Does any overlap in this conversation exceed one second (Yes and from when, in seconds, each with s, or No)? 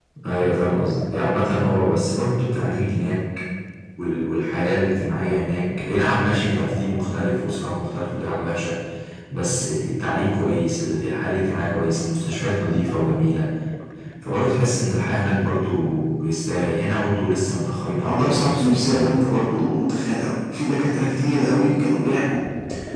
Yes, from 18.0 s